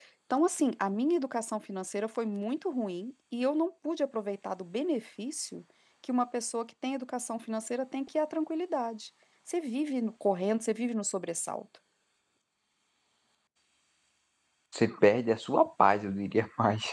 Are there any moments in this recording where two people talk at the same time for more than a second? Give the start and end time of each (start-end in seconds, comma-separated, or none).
none